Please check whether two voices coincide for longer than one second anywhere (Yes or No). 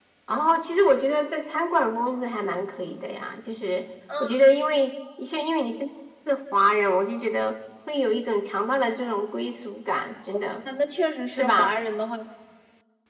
No